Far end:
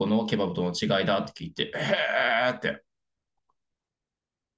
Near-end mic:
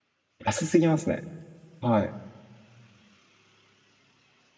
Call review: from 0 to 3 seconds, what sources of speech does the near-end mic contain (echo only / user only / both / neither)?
user only